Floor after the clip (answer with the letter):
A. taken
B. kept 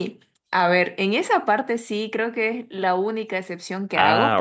B